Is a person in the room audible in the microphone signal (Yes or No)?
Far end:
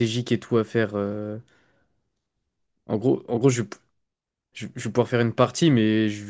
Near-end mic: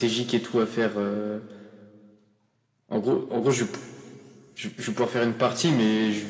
No